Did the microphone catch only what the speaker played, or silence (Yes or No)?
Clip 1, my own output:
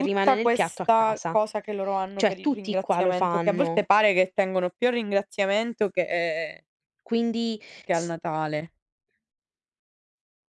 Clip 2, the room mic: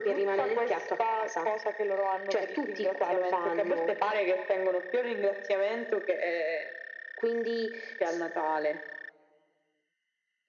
Yes